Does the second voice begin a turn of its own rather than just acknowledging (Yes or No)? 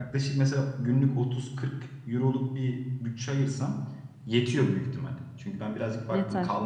No